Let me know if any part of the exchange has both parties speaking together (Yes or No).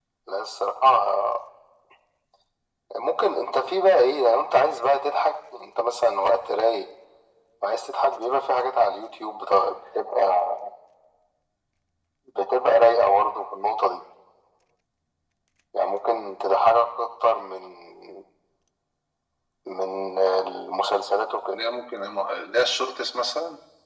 No